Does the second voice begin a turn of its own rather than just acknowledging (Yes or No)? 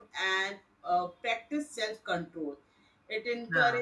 No